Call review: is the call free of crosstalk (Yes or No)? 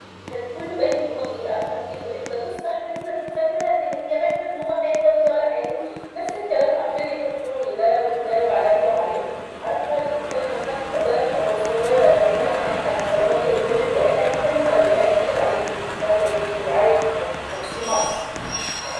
Yes